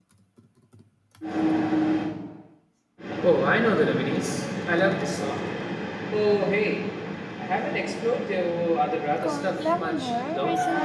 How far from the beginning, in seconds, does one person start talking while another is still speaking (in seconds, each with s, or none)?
9.2 s